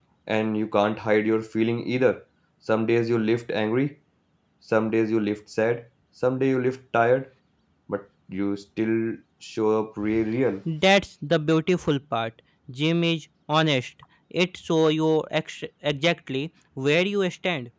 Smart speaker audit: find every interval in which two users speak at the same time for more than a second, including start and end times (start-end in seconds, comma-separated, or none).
none